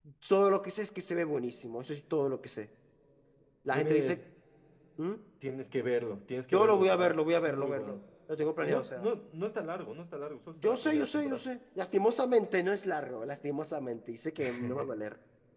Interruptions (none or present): present